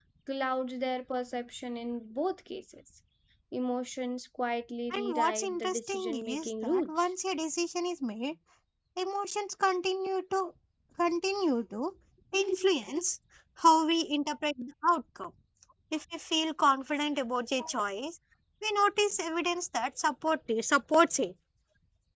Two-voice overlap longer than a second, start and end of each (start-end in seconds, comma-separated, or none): 4.9-6.9